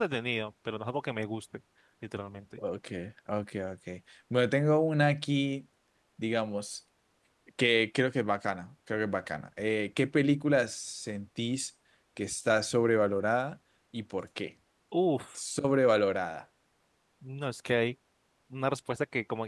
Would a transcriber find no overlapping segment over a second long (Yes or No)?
Yes